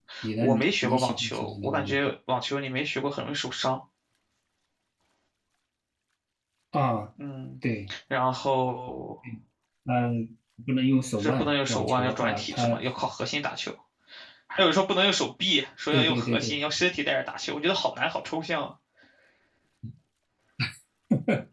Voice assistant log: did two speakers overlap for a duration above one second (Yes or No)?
Yes